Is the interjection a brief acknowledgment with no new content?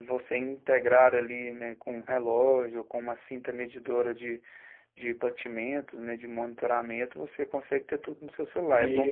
No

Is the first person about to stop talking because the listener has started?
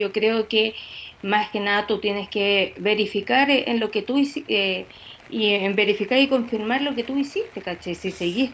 No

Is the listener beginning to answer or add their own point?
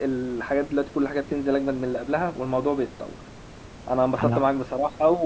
No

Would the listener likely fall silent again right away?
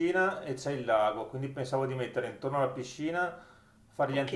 Yes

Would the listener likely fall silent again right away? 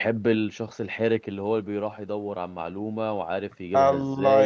No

